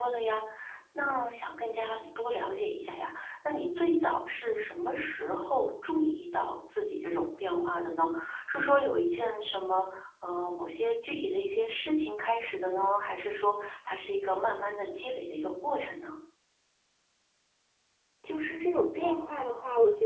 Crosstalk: none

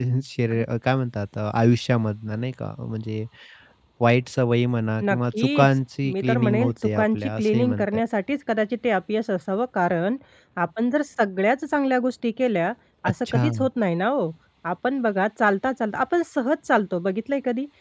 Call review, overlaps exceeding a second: present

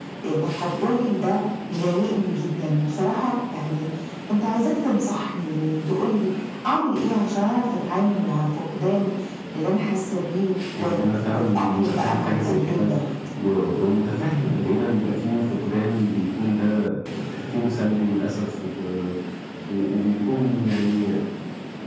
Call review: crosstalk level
present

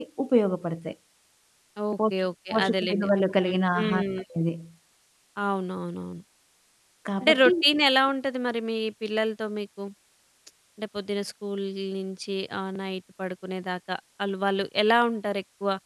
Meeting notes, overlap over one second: present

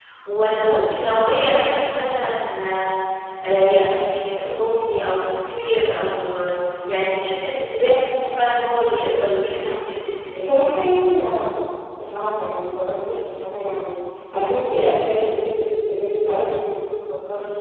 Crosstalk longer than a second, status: none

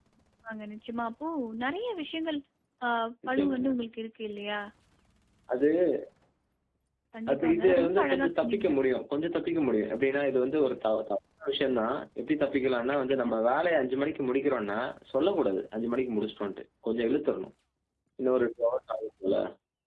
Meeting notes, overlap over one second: present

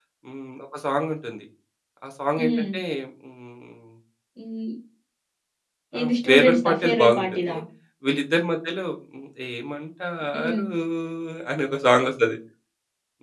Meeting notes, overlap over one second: present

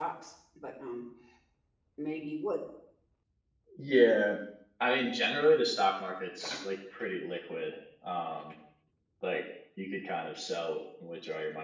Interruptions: none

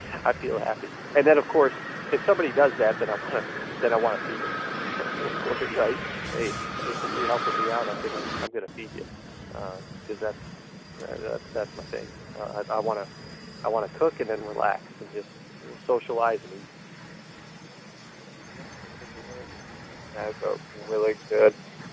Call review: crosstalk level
none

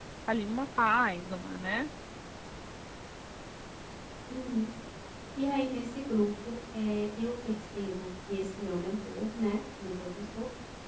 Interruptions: none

